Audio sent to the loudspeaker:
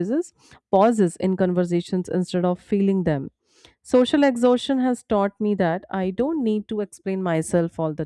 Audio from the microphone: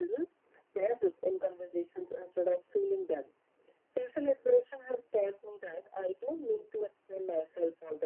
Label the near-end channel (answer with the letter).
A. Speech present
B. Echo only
B